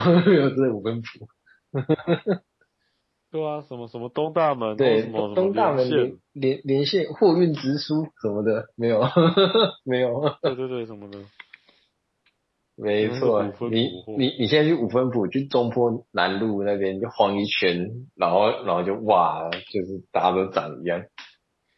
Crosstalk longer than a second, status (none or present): present